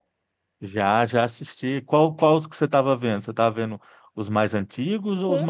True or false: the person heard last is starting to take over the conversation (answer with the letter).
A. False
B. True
B